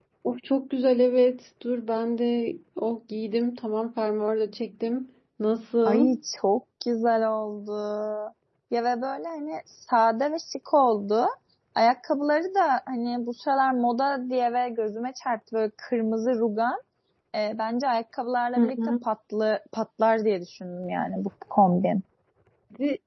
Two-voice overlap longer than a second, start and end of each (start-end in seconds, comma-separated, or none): none